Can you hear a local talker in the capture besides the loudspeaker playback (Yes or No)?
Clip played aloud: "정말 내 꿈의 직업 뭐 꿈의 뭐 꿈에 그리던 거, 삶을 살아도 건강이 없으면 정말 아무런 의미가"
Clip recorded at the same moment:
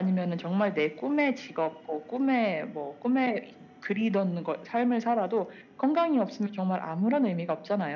No